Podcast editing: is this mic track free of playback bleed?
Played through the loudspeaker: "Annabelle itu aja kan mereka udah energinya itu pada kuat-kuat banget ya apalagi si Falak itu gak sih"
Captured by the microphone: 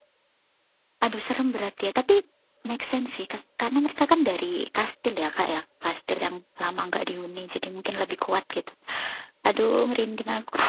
Yes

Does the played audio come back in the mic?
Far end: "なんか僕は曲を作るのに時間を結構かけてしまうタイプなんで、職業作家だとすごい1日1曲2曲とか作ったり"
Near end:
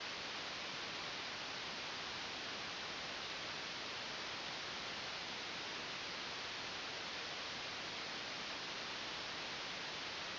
No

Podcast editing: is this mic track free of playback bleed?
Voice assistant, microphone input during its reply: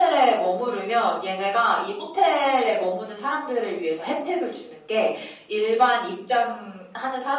No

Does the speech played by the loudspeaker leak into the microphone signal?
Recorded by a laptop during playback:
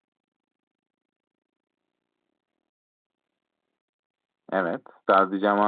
No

